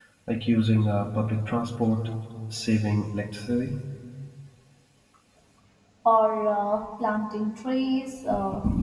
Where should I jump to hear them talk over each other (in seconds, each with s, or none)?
none